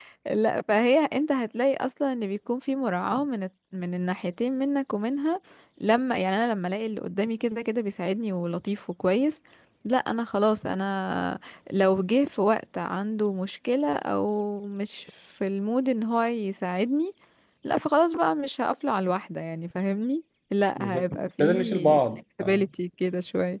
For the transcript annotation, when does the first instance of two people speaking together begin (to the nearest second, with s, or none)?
21 s